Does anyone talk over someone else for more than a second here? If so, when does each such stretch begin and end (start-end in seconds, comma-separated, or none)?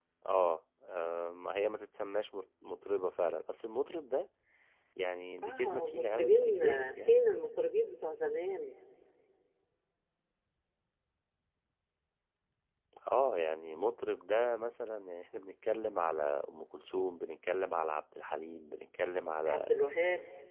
5.4-7.2